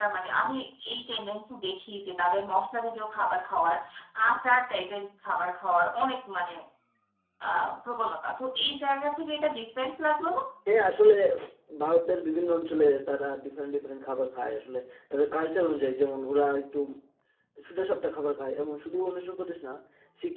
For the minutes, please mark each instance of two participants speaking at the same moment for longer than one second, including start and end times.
none

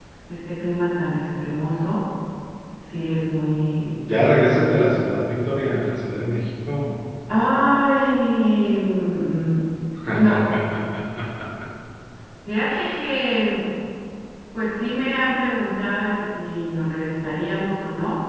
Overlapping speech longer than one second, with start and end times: none

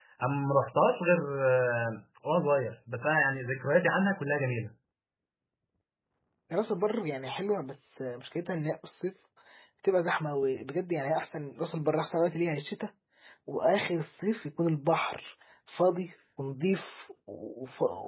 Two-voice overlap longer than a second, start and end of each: none

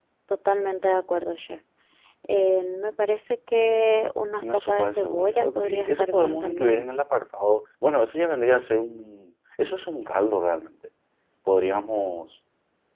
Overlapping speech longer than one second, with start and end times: 4.4-6.8

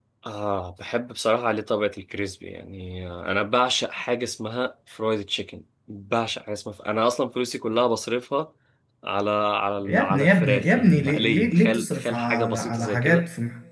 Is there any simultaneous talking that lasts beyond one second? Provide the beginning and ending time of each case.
9.8-13.2

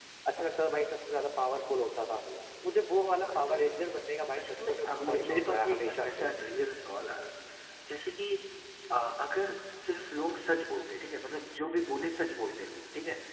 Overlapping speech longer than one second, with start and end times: 4.4-6.3

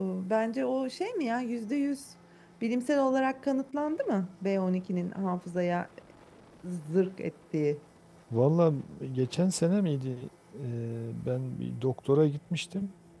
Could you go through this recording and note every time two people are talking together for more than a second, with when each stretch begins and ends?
none

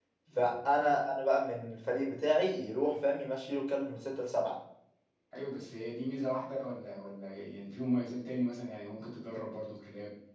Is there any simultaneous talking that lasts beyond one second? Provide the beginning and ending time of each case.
none

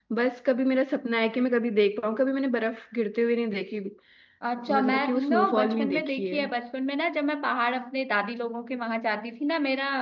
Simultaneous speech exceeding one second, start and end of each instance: 4.7-6.4

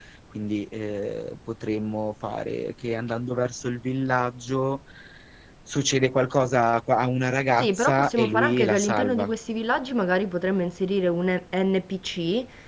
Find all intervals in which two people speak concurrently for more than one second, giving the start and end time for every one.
7.6-9.3

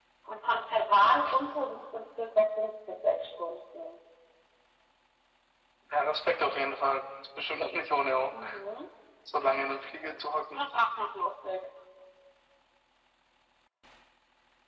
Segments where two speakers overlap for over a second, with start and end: none

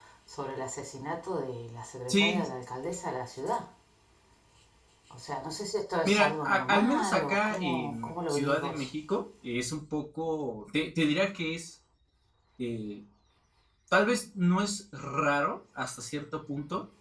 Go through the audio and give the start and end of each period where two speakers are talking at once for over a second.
6.0-8.9

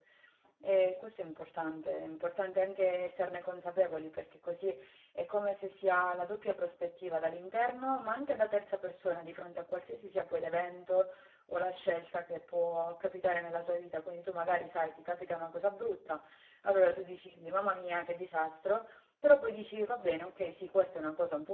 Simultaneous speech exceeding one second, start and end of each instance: none

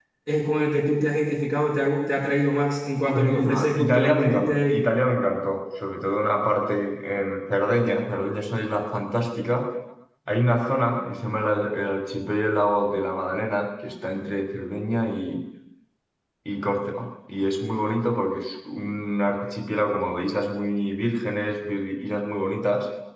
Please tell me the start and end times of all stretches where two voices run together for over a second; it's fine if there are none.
3.0-4.9

